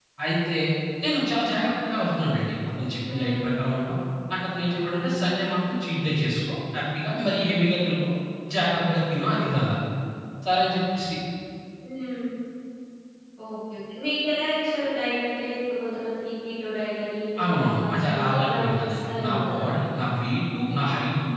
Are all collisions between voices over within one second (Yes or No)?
No